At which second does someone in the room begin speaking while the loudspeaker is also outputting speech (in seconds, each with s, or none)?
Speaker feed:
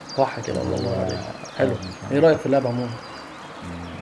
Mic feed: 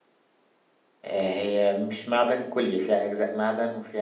1.0 s